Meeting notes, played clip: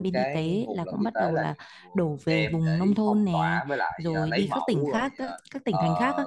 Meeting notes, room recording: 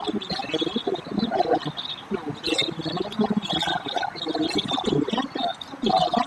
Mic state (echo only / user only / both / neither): echo only